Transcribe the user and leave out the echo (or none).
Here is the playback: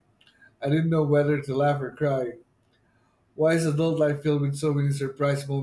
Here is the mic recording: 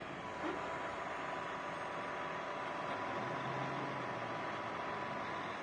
none